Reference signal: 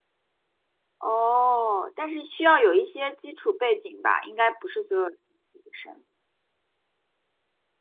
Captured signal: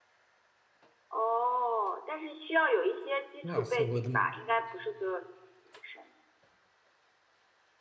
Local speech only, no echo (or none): 哇塞，我的